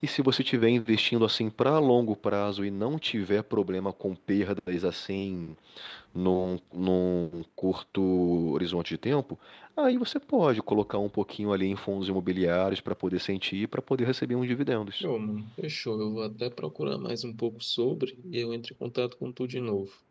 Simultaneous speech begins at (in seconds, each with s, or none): none